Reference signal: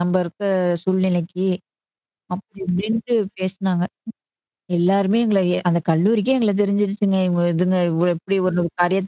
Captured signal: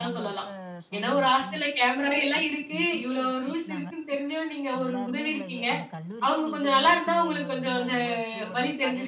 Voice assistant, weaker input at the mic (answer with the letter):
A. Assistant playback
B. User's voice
A